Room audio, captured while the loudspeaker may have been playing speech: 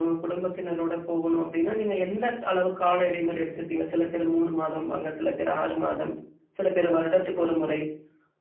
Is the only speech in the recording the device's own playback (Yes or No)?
Yes